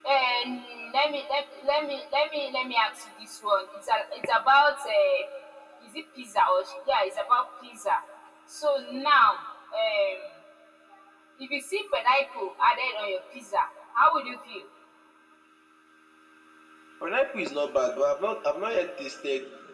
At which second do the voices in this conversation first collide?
none

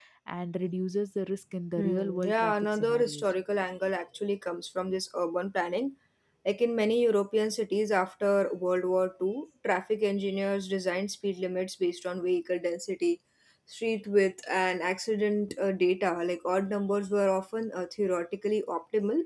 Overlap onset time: 2 s

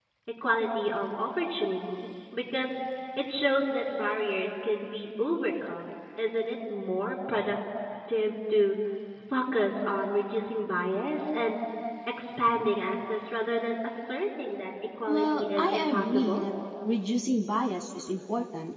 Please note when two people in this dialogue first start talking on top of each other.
15 s

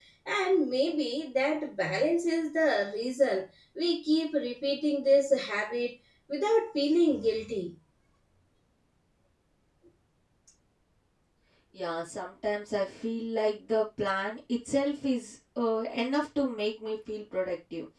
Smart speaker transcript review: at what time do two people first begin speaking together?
none

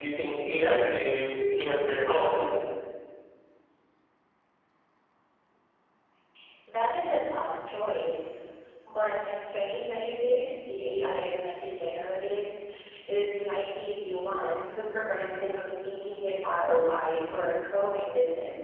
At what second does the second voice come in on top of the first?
none

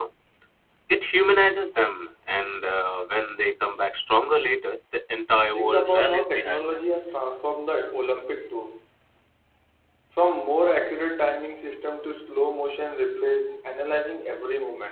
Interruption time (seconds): 6 s

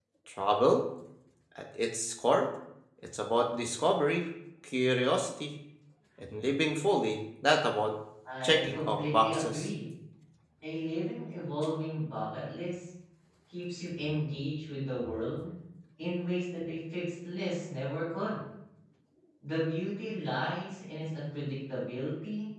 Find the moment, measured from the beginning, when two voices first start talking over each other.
8 s

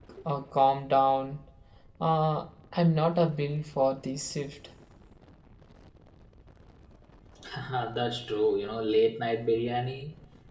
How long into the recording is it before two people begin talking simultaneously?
none

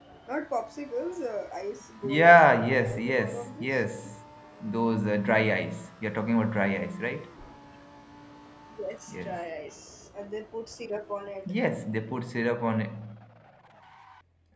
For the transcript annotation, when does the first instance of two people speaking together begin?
2 s

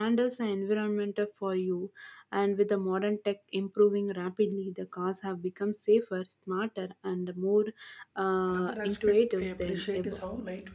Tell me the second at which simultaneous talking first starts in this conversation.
8 s

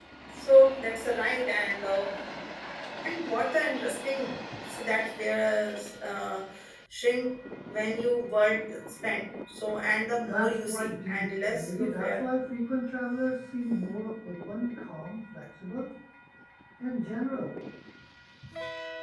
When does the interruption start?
10 s

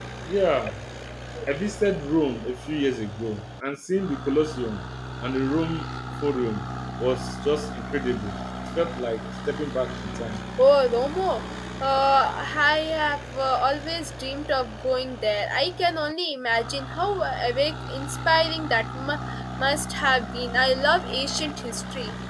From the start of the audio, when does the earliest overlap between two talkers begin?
none

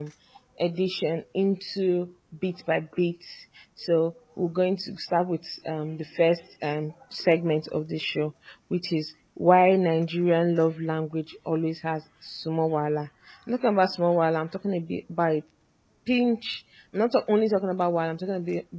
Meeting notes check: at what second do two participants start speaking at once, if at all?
none

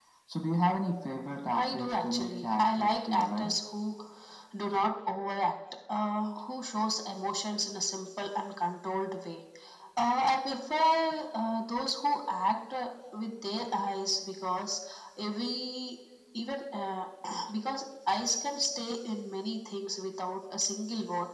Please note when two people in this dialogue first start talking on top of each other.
2 s

